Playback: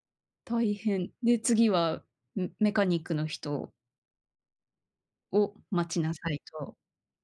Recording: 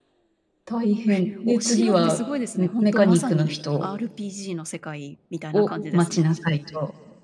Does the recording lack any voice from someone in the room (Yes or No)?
No